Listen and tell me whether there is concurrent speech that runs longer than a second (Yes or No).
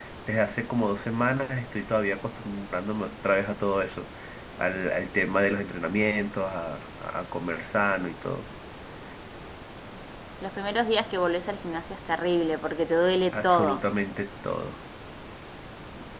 No